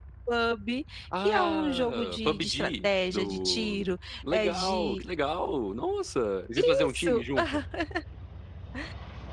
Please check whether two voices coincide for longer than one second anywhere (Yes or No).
Yes